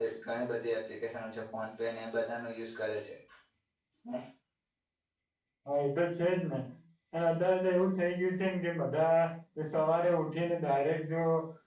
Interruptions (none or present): none